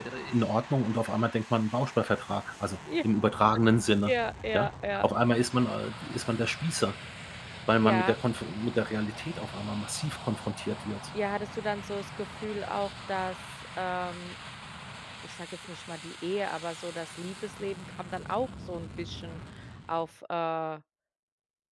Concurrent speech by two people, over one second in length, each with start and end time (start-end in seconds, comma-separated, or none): none